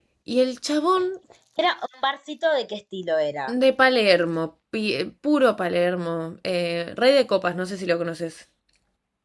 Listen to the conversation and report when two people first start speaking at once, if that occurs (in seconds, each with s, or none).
none